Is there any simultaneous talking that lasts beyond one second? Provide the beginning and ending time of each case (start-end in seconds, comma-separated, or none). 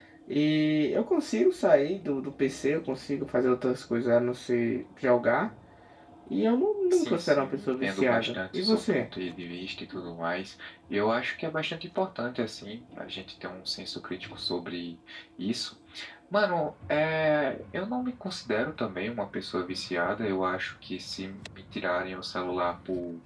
6.9-9.1